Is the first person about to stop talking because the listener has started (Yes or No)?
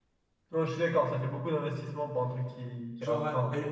Yes